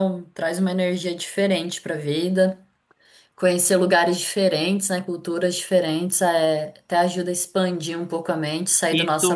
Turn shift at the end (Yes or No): Yes